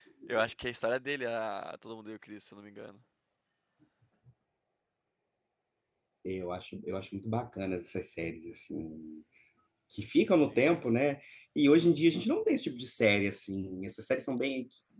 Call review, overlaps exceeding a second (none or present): none